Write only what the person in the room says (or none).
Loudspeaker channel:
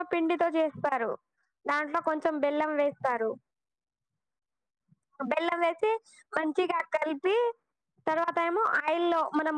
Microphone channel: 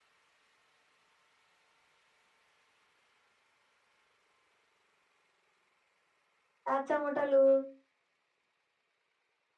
ఆ చమటలు